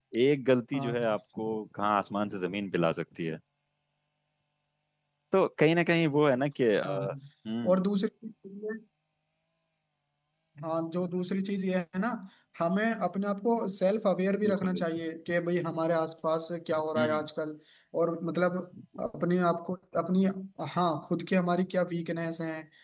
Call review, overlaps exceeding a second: none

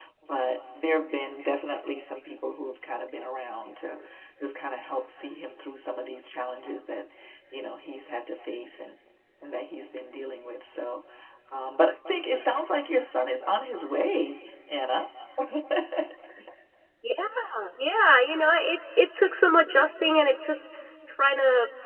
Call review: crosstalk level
none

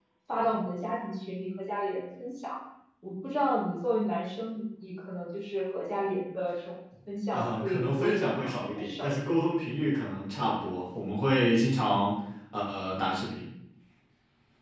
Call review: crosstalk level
present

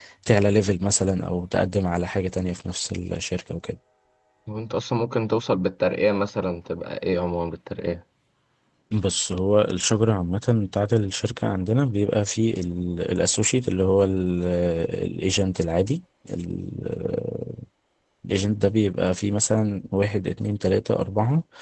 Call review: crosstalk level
none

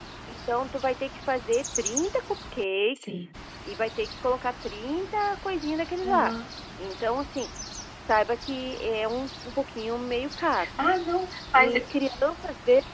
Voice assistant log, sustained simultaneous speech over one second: none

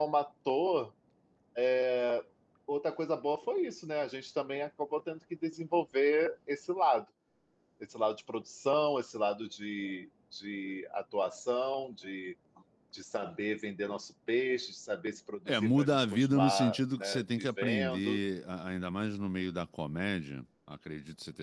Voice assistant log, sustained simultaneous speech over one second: present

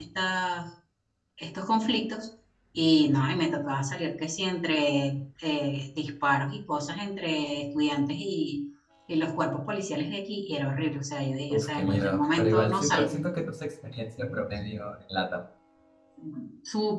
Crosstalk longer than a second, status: present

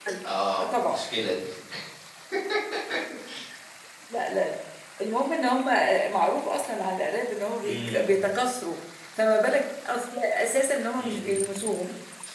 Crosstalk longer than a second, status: none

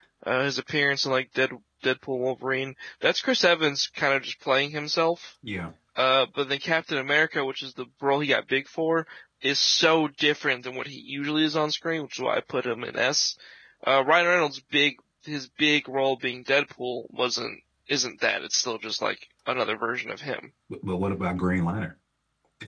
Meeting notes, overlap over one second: none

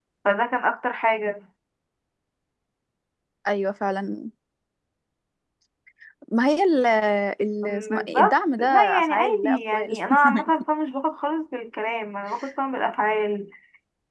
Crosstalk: present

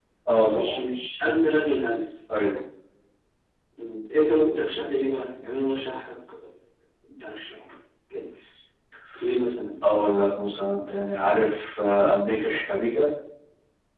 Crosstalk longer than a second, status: none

